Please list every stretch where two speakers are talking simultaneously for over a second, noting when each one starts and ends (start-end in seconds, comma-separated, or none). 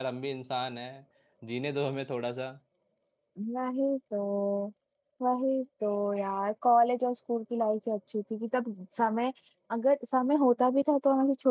none